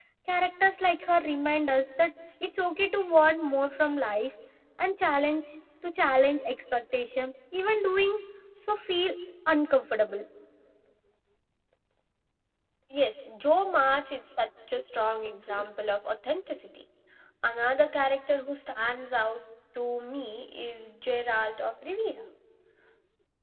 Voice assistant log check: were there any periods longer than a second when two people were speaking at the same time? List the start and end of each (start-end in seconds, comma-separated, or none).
none